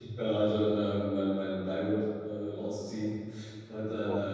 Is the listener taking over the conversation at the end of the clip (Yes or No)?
No